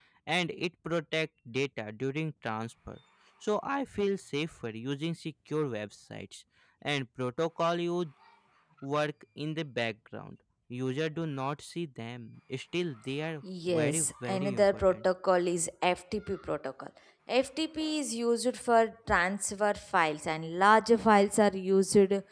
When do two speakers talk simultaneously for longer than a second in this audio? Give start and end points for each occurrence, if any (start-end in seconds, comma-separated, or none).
13.7-15.0